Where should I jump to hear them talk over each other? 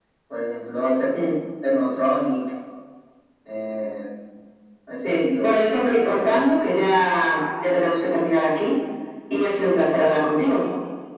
5 s

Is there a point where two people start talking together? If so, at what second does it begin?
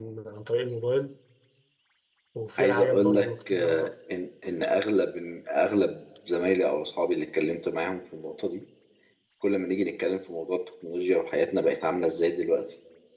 3 s

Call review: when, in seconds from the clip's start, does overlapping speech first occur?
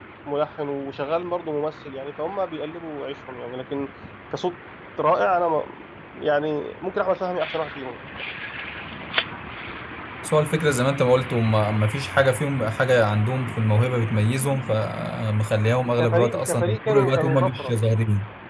16 s

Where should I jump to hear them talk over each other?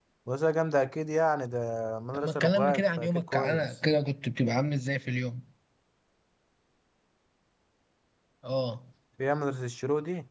2 s

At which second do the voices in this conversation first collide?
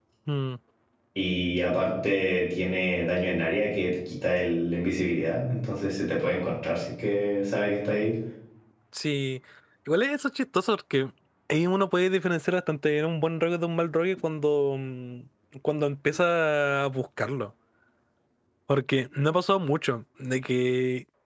none

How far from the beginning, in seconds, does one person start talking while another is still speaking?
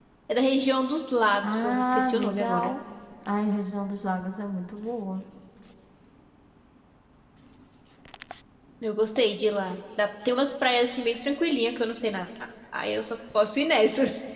1 s

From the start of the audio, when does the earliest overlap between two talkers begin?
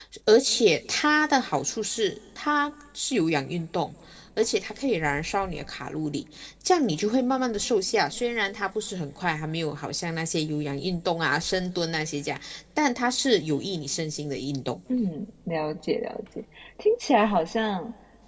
none

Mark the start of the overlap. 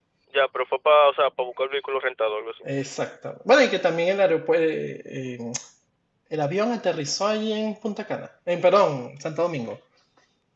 none

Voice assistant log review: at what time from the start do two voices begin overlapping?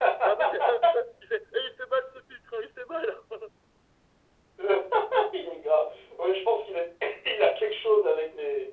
none

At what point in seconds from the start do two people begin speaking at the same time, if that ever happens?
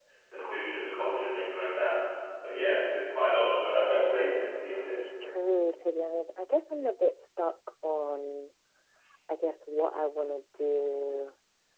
none

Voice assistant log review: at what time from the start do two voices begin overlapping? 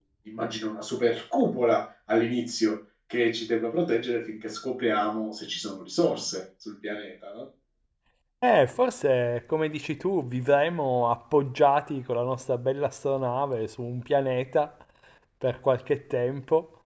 none

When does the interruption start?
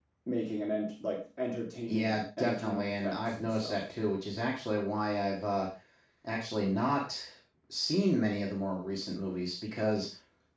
2 s

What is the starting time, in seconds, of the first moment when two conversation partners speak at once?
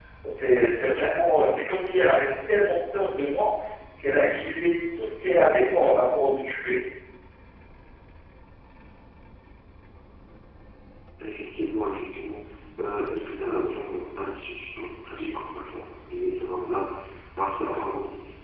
none

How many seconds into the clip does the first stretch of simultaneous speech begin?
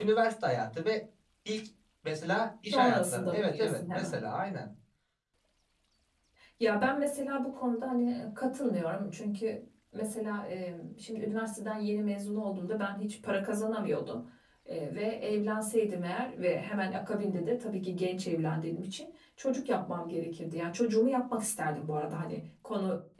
3 s

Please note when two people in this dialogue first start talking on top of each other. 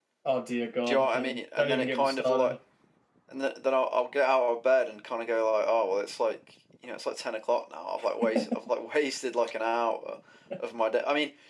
1 s

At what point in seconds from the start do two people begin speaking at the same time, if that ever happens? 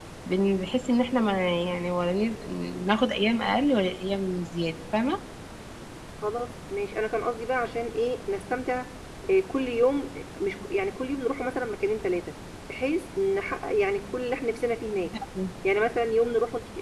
none

